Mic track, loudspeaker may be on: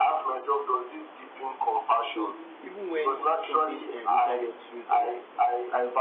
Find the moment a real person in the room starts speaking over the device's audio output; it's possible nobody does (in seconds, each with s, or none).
2.1 s